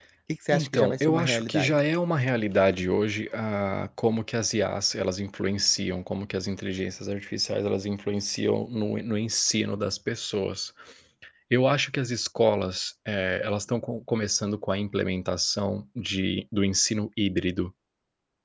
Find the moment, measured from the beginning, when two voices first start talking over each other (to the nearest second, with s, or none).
1 s